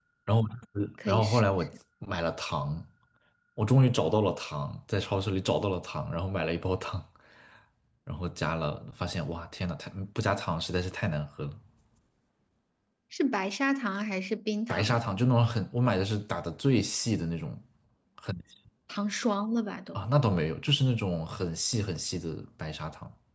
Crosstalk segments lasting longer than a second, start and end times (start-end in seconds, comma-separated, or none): none